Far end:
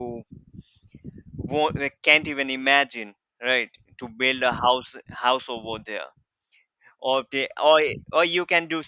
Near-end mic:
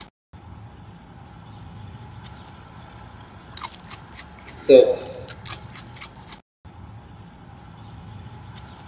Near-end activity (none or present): present